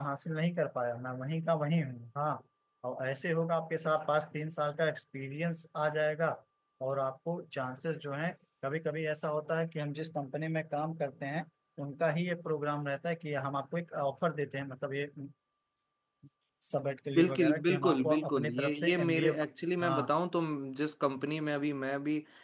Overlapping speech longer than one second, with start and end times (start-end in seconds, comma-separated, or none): 17.1-19.3